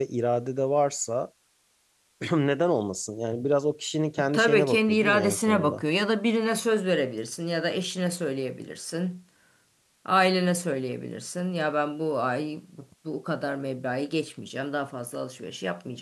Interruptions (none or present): present